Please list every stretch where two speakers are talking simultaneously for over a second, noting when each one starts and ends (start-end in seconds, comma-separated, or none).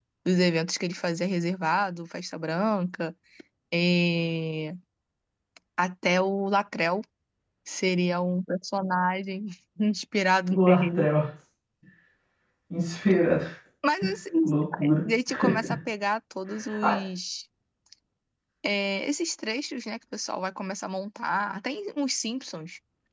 none